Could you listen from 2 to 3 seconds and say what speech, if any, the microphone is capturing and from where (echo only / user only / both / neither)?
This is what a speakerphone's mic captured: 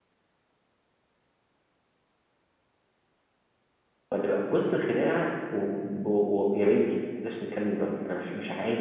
neither